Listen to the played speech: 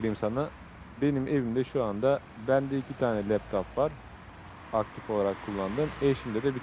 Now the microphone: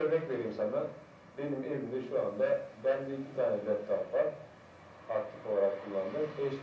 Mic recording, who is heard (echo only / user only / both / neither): echo only